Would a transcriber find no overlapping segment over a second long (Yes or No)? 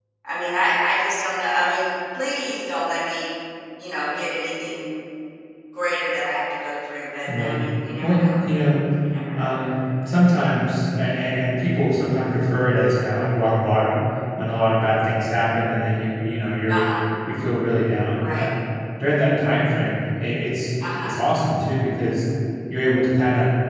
Yes